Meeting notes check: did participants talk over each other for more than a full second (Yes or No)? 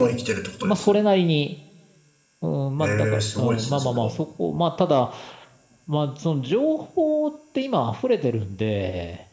Yes